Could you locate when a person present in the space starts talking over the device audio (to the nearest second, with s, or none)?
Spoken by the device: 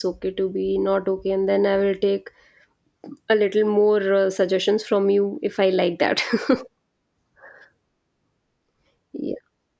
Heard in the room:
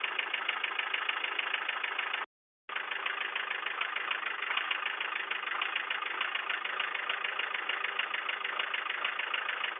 none